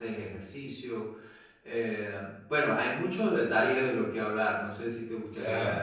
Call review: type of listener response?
taking over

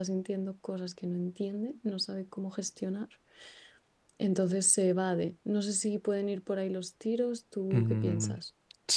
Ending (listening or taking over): taking over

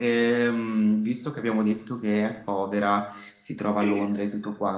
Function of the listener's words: listening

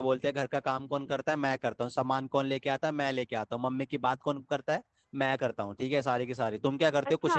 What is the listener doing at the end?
taking over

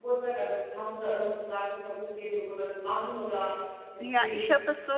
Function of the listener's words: taking over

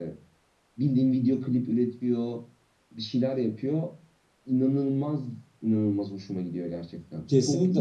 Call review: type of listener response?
taking over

